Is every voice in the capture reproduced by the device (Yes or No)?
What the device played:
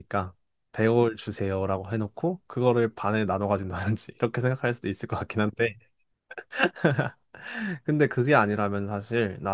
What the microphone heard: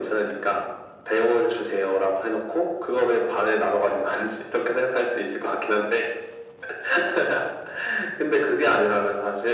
Yes